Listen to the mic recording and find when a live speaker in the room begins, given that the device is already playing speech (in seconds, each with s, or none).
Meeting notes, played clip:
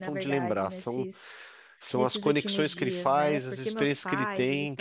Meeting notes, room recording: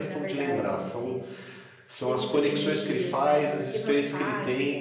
none